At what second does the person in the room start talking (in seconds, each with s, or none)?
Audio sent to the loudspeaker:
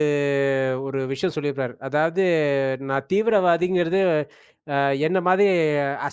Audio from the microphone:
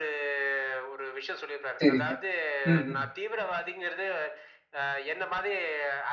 1.8 s